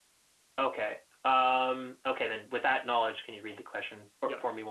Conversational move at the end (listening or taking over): taking over